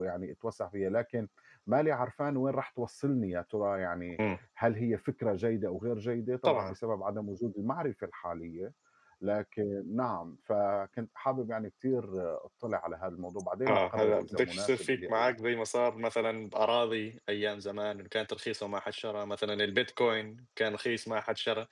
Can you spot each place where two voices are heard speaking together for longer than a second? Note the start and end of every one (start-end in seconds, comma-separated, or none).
13.7-15.4